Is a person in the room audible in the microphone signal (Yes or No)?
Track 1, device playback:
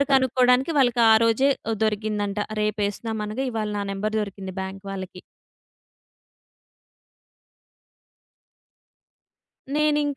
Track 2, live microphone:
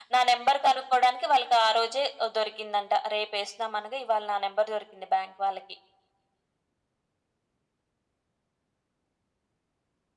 No